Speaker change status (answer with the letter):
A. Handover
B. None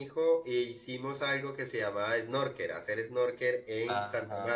A